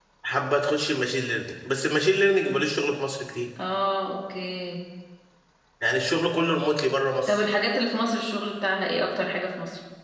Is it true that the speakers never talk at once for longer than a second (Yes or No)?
Yes